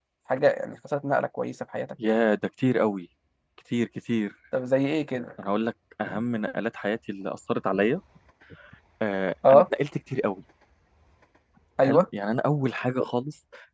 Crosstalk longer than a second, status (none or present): none